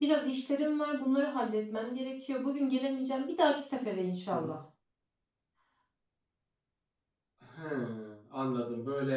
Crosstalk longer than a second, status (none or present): none